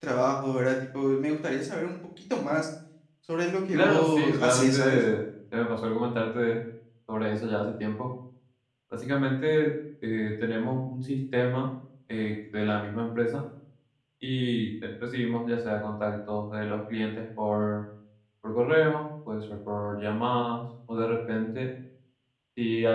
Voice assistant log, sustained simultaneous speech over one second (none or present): present